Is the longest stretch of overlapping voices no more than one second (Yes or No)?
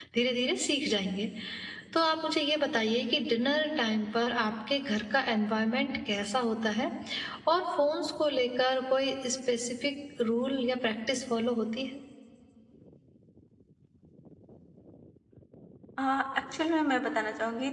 Yes